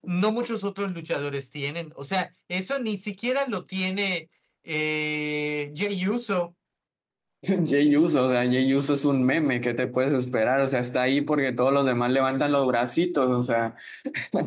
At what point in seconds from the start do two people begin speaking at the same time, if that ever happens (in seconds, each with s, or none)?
none